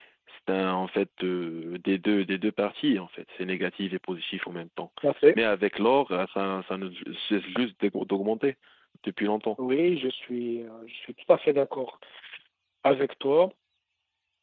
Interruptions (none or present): none